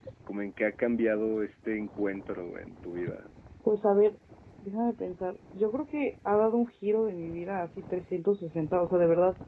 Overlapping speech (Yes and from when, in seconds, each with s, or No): No